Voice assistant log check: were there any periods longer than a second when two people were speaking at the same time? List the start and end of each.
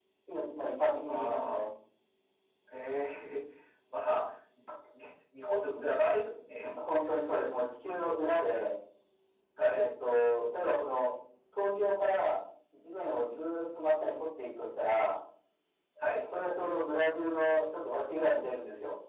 none

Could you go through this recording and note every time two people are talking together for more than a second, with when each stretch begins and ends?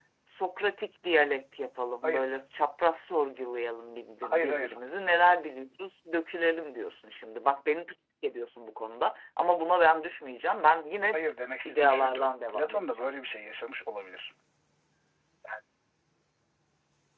11.7-13.1

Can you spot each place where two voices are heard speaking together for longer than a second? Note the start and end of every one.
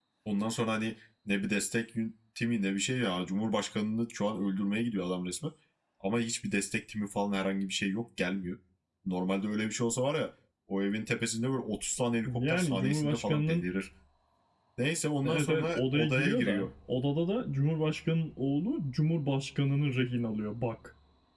12.3-13.7, 15.2-16.7

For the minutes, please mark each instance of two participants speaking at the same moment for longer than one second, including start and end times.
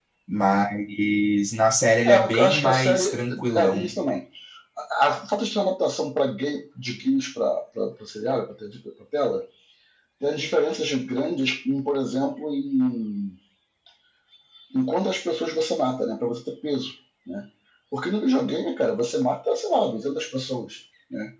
2.0-4.0

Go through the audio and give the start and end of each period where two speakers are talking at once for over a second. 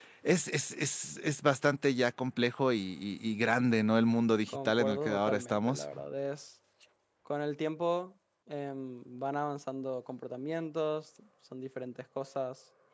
4.5-5.8

